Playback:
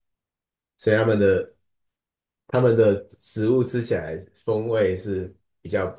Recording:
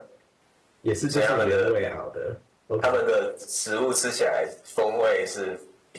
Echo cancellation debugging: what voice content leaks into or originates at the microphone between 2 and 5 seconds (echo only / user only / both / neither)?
both